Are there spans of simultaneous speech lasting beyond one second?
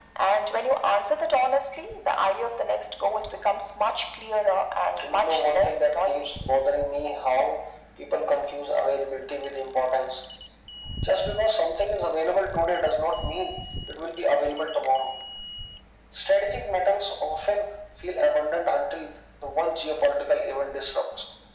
Yes, from 5.0 s

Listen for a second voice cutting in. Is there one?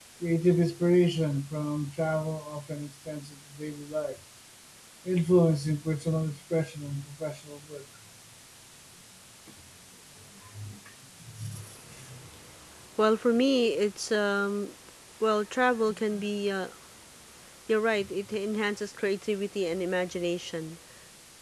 No

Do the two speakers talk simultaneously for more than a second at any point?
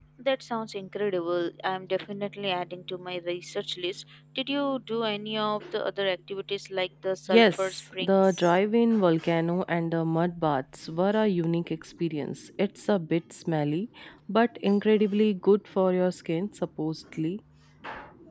Yes, from 7.3 s

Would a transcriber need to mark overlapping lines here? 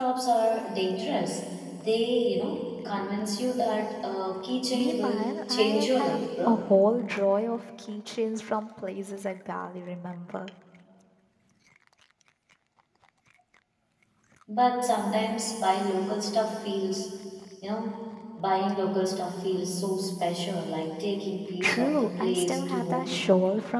Yes, from 4.7 s

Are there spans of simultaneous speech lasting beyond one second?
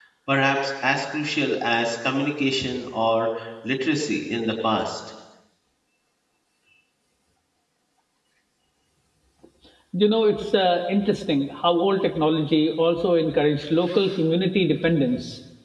No

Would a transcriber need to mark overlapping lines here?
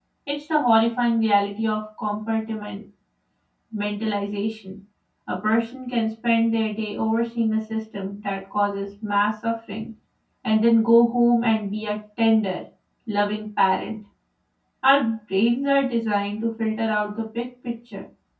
No

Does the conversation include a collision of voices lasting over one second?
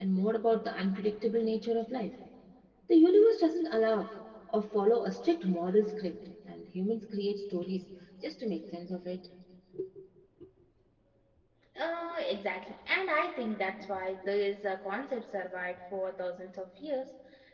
No

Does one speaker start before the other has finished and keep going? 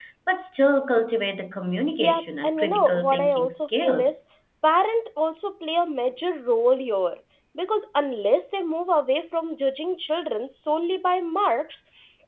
Yes, from 2.0 s

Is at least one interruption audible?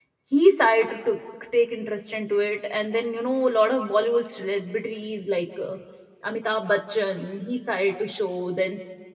No

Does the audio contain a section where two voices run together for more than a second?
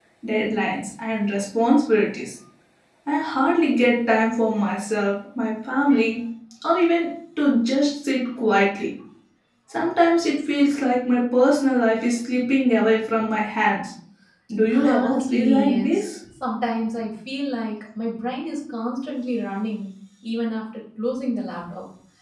Yes, from 14.8 s

